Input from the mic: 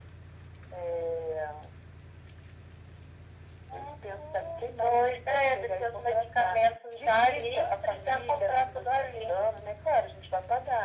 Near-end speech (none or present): none